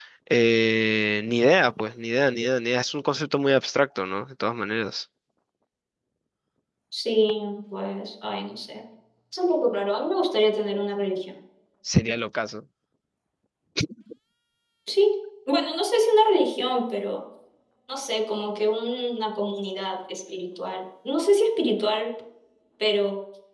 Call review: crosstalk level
none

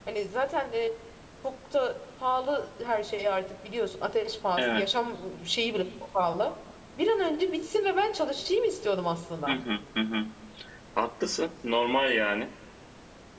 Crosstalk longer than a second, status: none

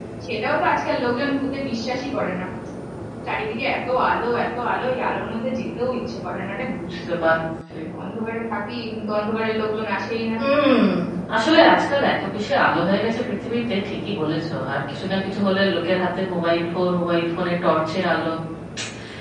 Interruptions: none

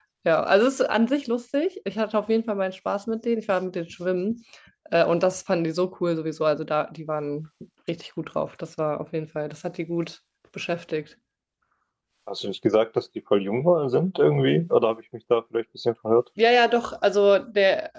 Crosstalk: none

